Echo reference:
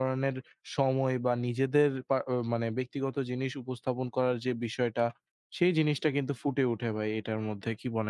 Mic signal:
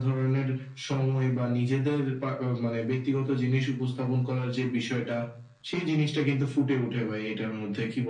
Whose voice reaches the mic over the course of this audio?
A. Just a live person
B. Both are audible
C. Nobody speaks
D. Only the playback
D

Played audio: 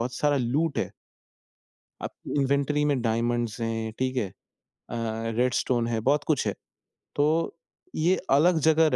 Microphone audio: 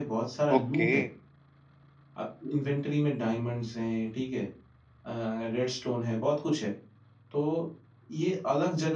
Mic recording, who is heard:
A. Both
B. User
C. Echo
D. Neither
A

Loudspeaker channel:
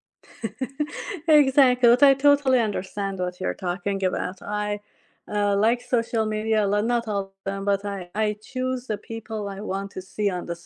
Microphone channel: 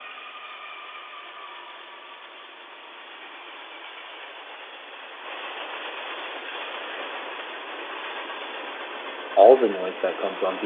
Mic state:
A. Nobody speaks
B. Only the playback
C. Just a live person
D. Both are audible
C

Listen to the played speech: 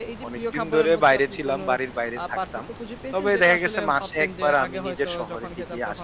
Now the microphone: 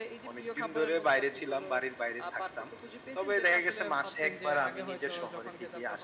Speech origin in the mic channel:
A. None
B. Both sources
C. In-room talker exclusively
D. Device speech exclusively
D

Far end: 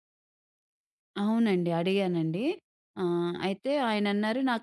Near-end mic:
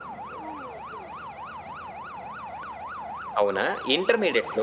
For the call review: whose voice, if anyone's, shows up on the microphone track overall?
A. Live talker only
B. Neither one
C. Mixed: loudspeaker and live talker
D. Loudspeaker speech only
A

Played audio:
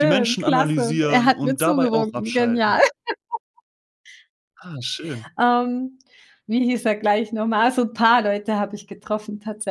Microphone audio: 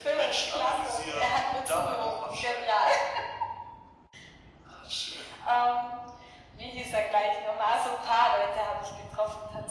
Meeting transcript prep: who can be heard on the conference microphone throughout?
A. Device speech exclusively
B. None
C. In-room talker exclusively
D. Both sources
A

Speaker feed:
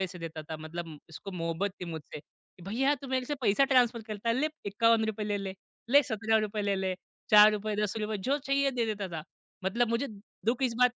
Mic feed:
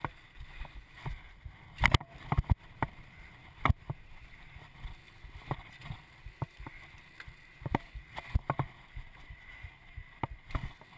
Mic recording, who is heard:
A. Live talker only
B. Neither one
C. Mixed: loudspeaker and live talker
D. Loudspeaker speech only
B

